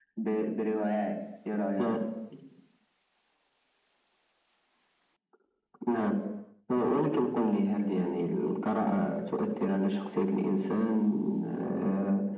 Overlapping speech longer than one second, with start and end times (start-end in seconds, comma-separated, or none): none